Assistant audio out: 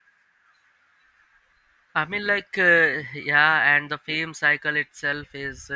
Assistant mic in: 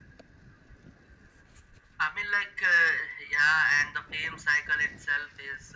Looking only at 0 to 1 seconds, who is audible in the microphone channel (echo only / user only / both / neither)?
neither